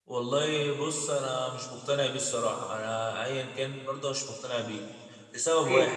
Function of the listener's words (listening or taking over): taking over